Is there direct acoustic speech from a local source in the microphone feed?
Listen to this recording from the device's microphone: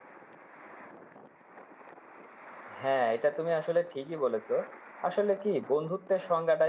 Yes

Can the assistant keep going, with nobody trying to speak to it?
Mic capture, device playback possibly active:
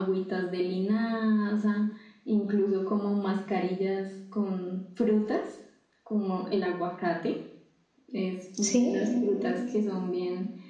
No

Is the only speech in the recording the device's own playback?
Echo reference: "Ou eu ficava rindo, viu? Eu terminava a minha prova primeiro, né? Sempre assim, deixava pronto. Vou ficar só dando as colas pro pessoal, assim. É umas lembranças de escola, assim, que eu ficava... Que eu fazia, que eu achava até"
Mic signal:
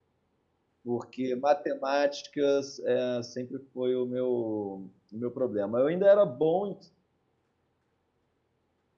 No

